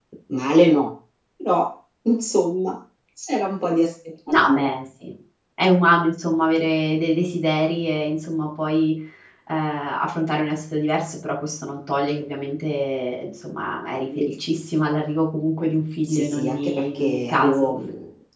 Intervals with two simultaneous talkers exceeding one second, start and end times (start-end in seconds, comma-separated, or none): 16.1-17.7